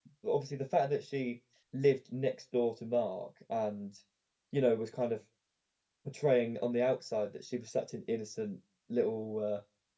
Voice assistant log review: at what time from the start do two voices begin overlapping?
none

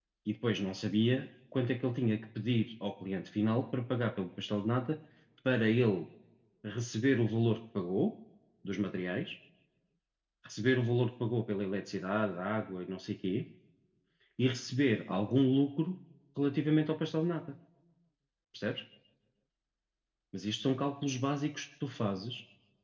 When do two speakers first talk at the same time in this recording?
none

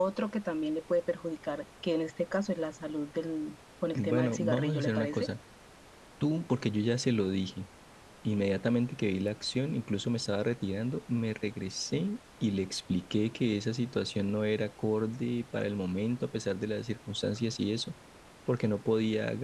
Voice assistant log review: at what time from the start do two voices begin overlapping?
4 s

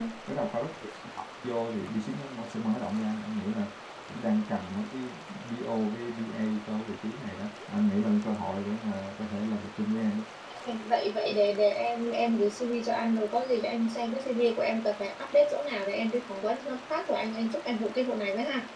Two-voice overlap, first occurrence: none

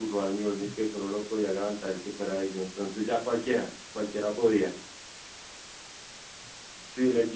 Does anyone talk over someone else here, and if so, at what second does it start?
none

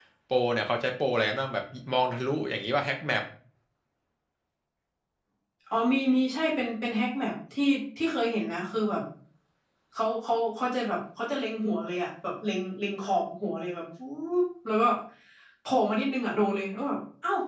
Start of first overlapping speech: none

